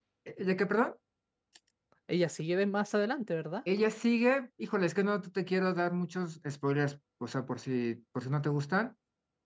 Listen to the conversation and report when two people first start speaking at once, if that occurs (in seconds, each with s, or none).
none